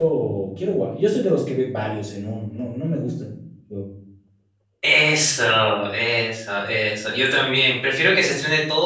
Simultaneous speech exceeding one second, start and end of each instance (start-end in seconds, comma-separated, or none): none